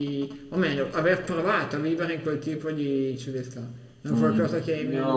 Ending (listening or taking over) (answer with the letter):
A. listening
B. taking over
B